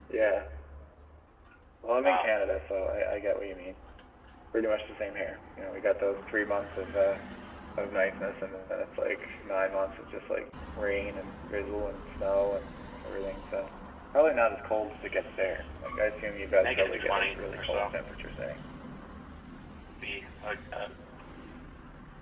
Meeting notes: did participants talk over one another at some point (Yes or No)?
Yes